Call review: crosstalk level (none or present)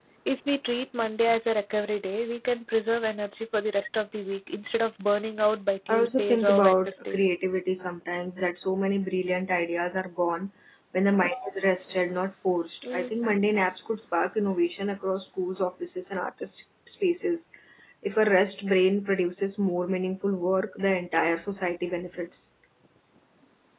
present